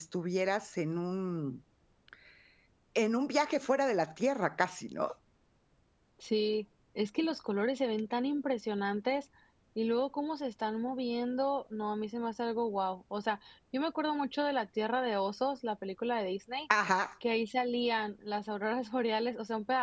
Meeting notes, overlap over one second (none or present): none